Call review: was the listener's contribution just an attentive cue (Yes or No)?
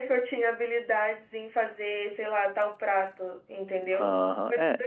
No